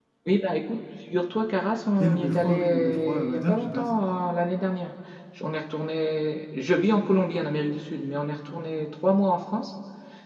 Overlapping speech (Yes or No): Yes